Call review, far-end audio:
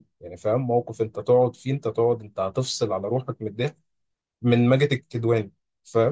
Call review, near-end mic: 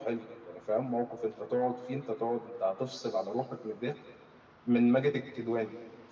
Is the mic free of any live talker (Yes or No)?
Yes